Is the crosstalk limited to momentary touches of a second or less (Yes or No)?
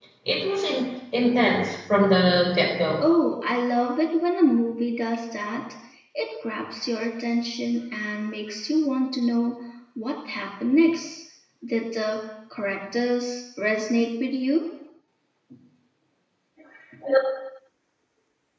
Yes